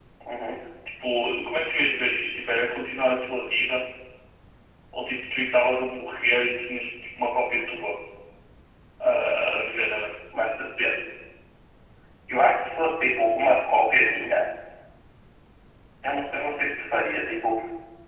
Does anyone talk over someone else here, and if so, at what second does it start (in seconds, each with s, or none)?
none